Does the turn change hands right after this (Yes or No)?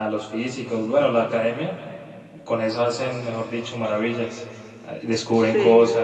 No